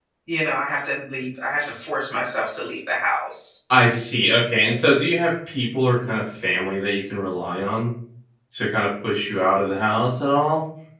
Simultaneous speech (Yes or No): No